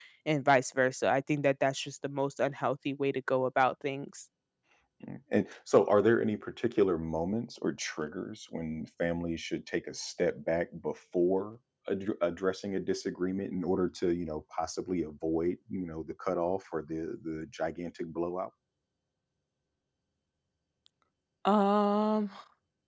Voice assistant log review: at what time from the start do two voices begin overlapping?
none

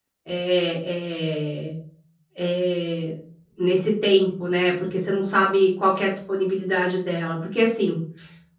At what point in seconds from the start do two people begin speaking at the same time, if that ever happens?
none

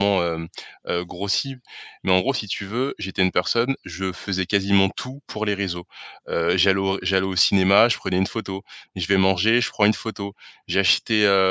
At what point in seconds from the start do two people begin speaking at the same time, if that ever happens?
none

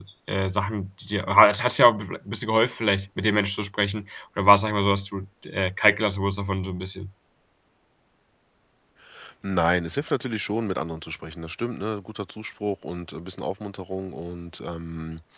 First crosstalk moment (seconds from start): none

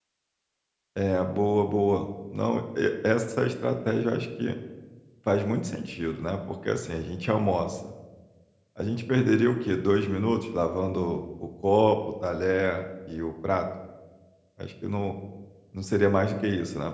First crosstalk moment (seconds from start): none

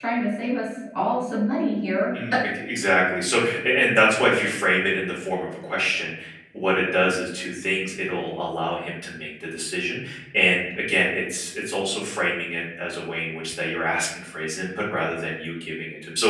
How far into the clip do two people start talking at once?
none

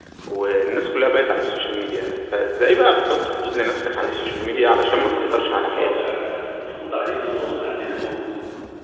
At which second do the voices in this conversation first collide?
3.8 s

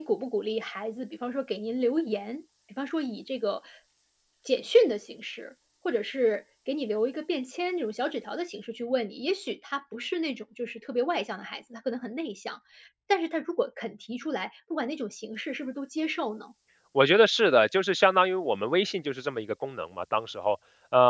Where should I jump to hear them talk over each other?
none

